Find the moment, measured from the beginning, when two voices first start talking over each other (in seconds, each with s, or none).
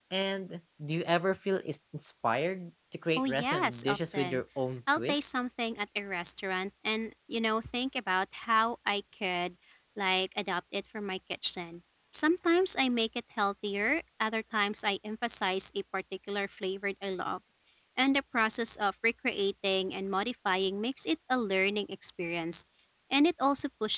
3.2 s